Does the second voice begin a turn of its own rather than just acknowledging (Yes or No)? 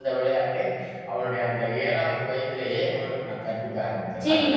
Yes